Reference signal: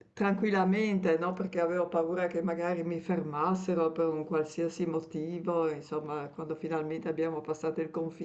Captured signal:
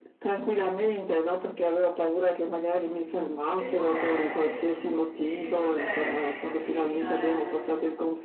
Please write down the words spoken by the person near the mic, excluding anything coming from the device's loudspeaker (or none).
E com'è? E, c- sì, e com'è? Che esperienza è?